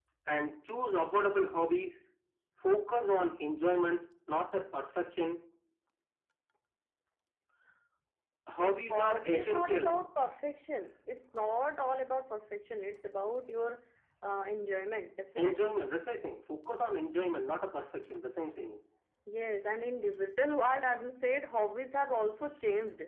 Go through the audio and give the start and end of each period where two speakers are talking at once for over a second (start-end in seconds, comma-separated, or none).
8.6-10.0